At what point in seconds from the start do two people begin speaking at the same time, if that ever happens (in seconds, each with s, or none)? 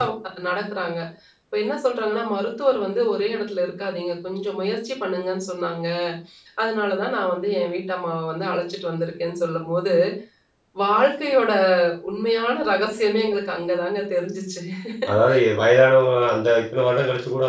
none